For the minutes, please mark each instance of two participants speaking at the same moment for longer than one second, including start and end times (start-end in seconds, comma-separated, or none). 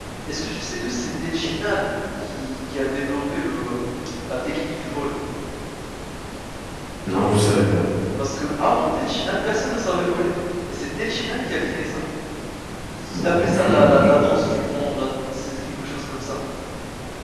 13.1-14.3